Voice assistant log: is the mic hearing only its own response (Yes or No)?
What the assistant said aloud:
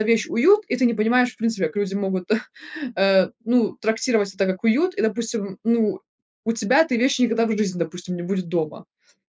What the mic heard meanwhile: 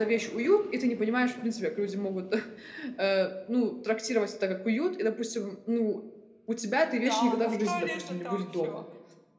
No